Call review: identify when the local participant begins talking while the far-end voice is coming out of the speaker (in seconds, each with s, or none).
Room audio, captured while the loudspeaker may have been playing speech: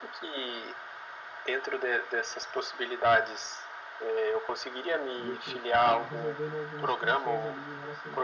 5.2 s